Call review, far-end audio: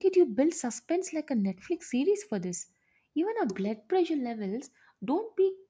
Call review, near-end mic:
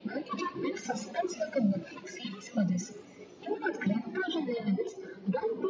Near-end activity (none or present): none